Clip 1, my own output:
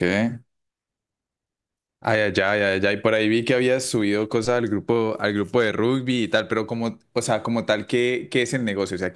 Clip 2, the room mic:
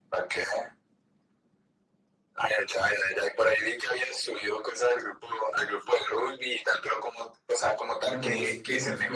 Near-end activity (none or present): present